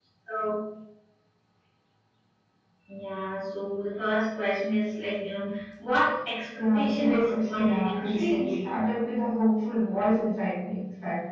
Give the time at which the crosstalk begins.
6.6 s

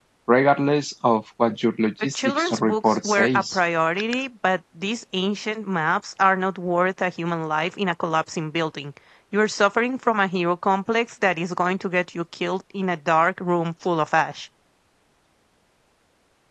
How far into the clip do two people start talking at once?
2.2 s

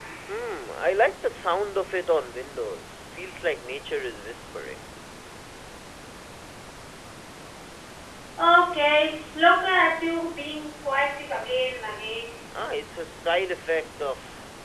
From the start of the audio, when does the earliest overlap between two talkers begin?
none

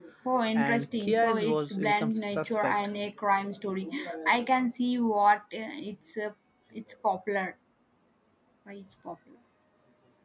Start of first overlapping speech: 0.6 s

